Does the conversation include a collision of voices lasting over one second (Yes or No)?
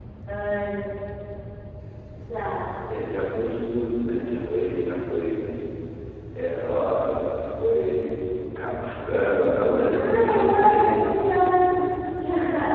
Yes